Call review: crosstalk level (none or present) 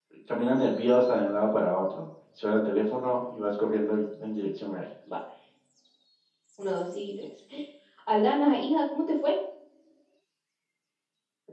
none